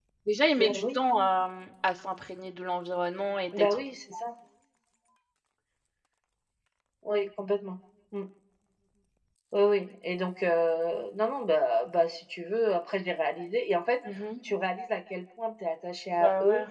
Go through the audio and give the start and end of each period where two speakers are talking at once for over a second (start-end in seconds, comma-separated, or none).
none